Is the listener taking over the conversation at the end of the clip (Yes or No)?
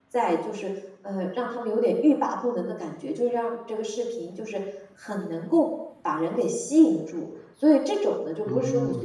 No